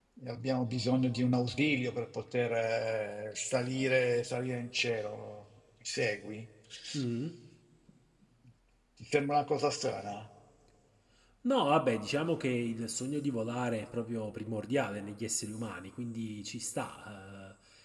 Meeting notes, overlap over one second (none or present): none